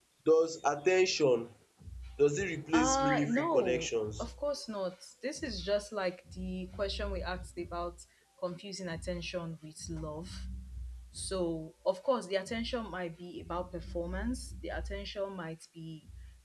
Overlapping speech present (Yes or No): Yes